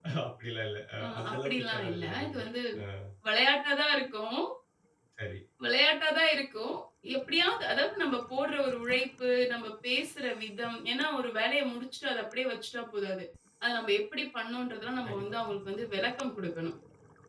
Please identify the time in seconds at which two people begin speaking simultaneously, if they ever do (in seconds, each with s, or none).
1.0 s